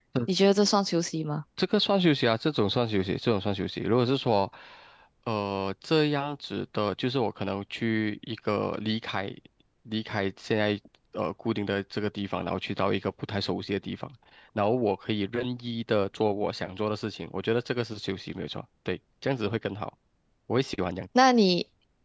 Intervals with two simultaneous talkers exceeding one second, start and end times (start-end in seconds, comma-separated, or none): none